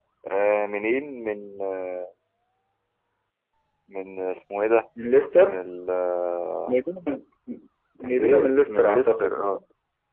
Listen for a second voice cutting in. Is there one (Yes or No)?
Yes